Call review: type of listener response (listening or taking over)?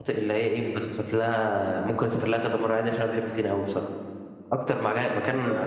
listening